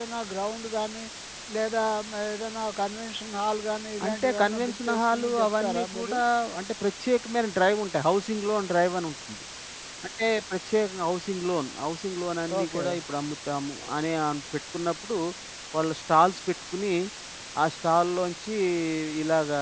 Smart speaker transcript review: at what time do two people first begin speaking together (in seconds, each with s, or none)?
4.0 s